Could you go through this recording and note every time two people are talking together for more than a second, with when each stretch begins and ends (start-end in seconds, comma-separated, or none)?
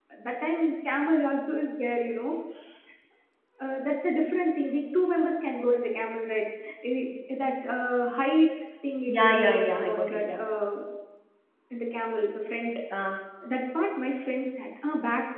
9.1-10.4